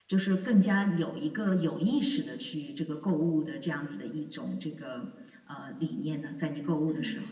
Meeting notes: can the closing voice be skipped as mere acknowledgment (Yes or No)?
No